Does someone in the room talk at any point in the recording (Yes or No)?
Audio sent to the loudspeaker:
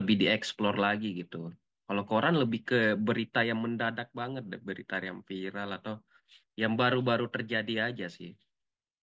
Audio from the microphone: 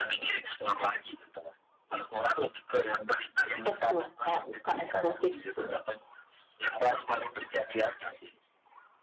Yes